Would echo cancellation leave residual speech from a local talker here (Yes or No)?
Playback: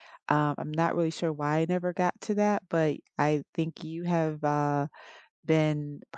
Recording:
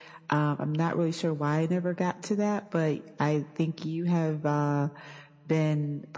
No